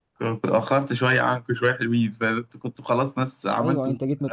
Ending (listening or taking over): taking over